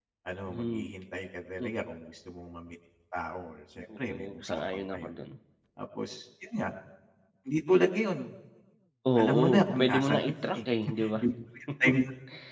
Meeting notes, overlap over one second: present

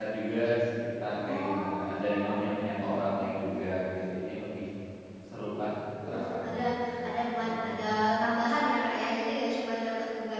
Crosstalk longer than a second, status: present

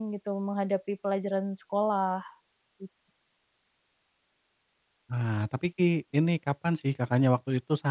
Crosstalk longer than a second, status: none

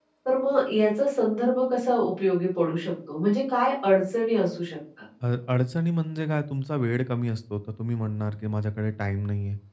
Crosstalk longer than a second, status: none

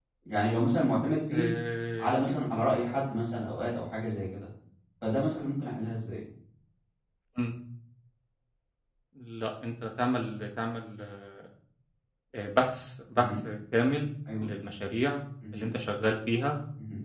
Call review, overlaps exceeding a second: none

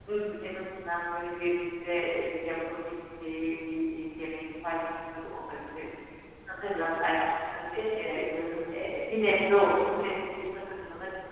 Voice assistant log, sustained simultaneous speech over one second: none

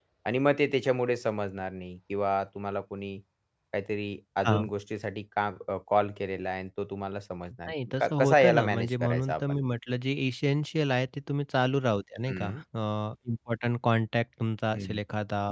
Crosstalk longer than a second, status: present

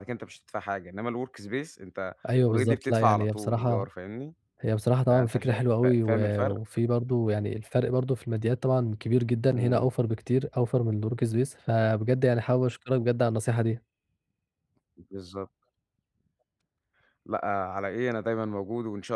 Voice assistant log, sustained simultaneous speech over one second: present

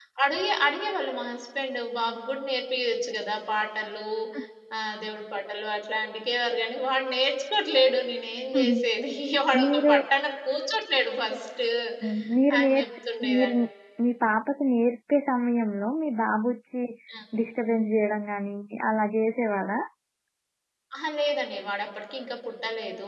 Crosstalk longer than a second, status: none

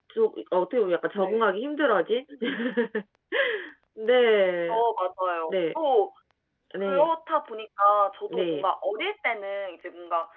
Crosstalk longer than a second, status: none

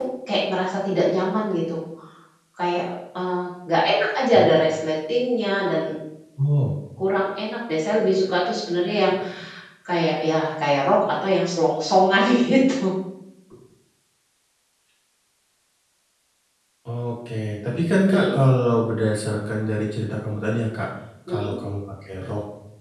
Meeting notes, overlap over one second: none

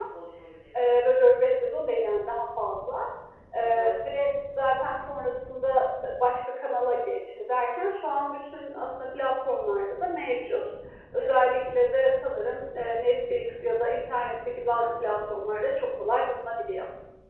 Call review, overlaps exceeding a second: none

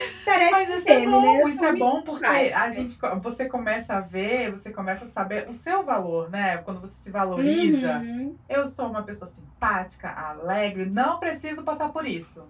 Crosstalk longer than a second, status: present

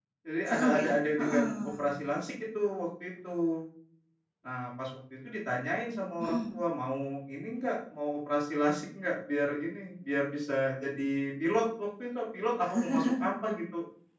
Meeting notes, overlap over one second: present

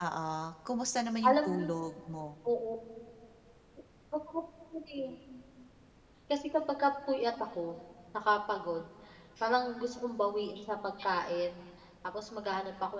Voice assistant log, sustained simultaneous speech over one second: none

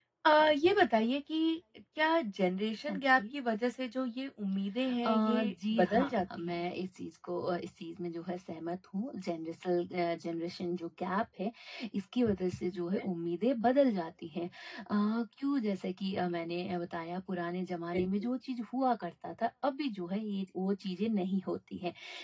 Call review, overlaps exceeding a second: present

